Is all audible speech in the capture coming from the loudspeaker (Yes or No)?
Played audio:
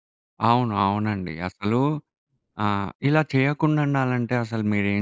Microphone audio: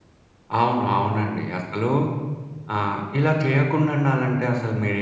Yes